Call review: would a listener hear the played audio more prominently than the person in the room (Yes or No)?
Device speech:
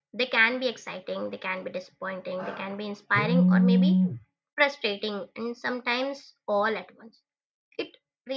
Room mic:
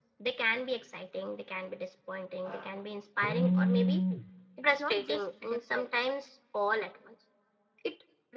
Yes